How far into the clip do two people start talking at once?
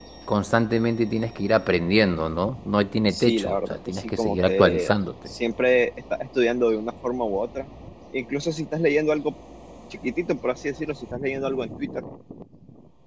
3.1 s

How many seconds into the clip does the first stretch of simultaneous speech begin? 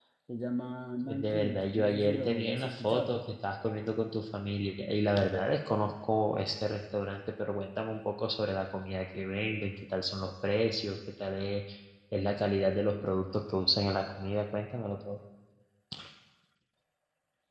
1.0 s

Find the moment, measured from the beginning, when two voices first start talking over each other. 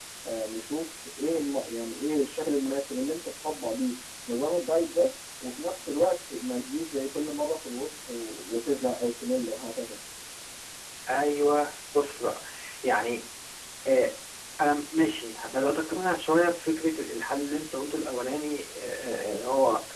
none

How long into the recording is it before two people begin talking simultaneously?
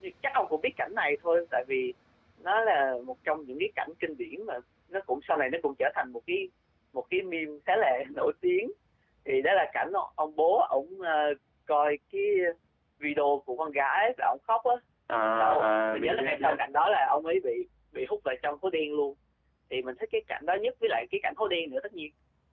15.3 s

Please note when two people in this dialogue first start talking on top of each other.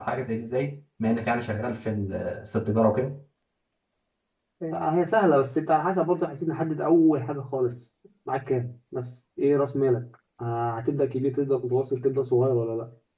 none

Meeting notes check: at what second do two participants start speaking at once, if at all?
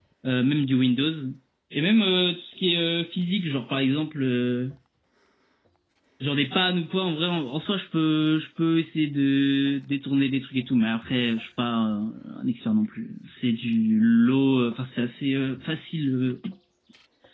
none

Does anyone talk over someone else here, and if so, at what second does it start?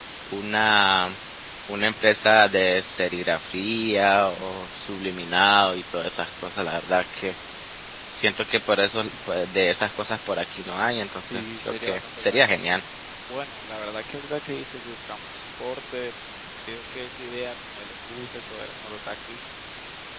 11.3 s

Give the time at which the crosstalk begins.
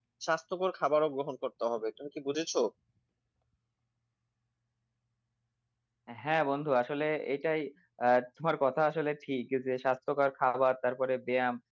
none

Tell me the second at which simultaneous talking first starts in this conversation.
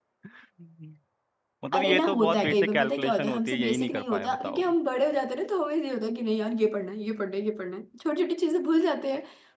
1.7 s

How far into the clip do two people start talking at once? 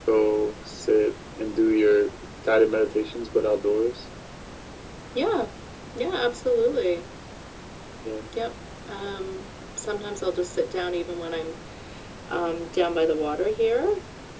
none

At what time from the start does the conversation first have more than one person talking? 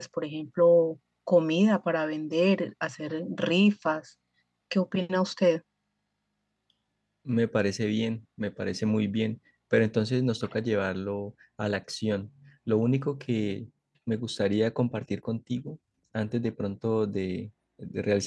none

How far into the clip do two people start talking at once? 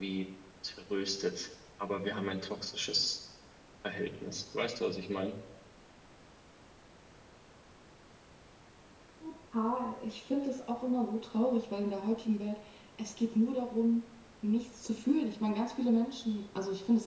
none

